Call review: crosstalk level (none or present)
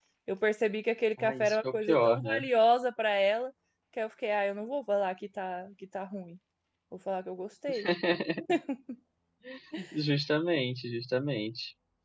present